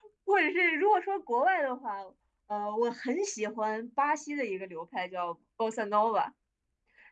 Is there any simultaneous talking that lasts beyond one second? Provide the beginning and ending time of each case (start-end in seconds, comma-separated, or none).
none